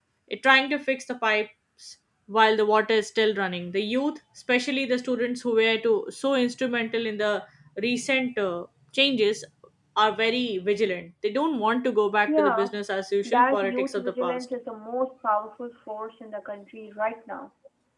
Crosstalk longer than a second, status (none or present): present